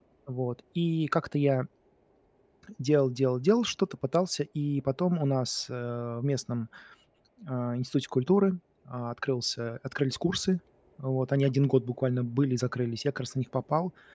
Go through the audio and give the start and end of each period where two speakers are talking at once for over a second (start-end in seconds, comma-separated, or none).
none